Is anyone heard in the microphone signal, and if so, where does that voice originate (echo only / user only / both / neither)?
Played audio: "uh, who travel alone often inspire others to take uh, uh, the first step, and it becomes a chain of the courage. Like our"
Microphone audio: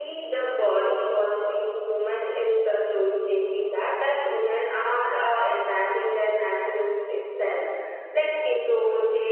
user only